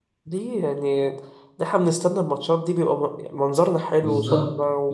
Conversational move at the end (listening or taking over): taking over